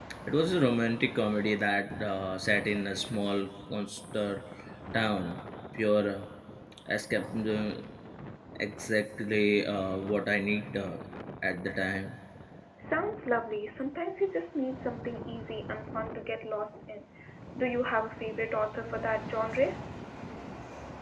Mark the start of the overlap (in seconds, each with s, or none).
none